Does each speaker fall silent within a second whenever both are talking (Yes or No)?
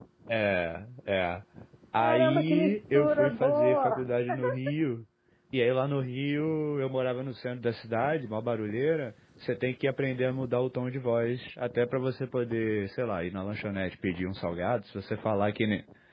No